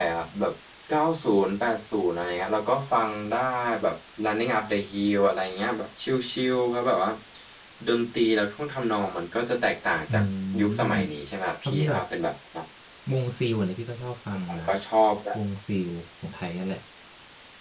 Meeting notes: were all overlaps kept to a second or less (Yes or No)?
Yes